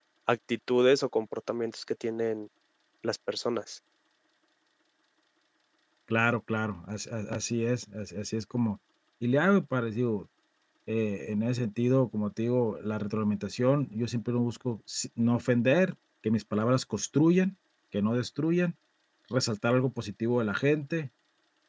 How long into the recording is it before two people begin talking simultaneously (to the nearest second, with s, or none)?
none